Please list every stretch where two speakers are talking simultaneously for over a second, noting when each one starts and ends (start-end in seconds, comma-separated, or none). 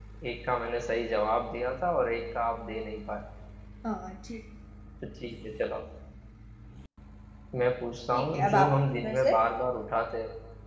8.1-9.3